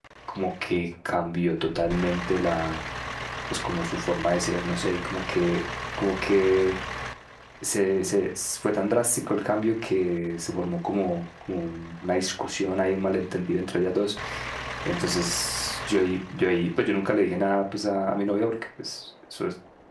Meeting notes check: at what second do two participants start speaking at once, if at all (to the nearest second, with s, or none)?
none